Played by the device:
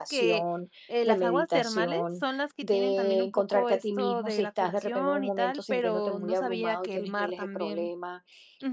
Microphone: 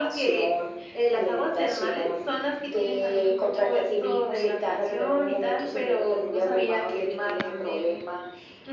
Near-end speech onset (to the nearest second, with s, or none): none